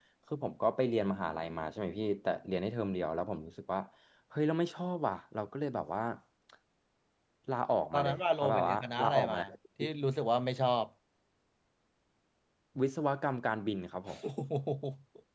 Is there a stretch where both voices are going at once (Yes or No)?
Yes